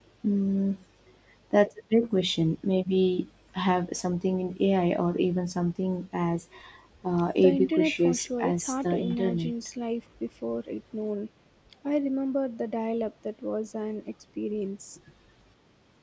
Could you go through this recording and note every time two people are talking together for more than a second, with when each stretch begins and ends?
7.3-9.5

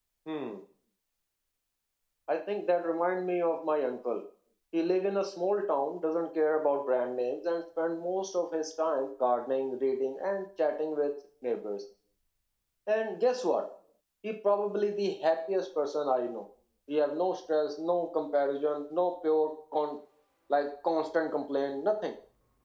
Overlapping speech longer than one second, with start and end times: none

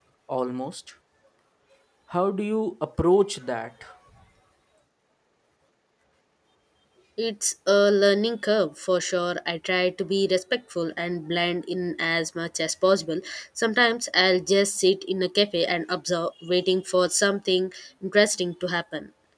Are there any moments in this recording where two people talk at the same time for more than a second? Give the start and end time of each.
none

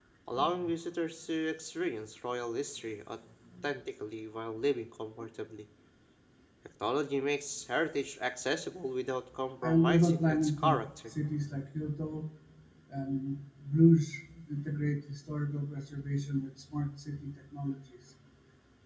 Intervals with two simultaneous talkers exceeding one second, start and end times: 9.6-10.8

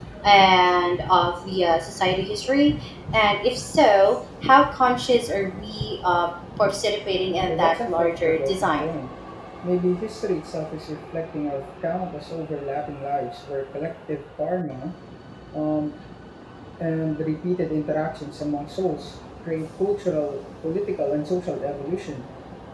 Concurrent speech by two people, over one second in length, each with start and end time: 7.5-8.8

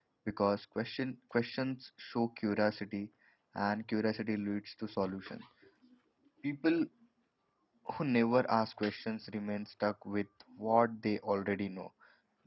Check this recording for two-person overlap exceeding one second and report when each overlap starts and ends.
none

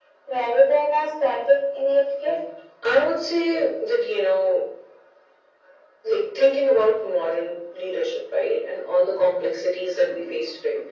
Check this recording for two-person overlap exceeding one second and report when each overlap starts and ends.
none

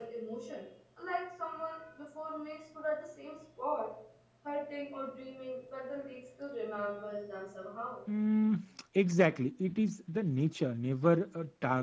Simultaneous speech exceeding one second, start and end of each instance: none

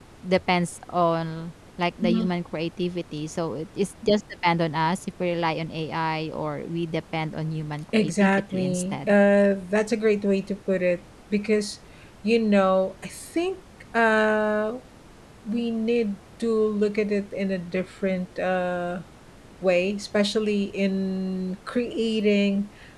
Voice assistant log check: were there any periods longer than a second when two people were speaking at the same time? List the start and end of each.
7.9-9.1

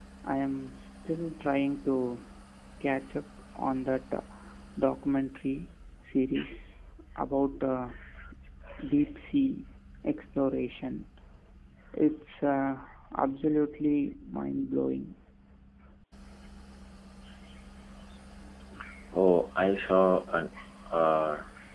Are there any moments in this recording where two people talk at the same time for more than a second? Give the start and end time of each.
none

